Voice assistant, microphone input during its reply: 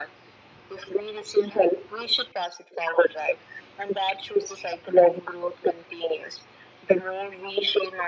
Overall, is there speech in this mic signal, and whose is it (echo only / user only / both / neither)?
echo only